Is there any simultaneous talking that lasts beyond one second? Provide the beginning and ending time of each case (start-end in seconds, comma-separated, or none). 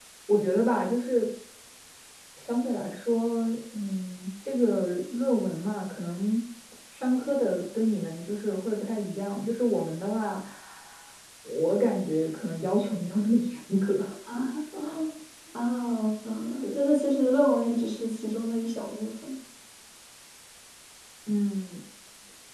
none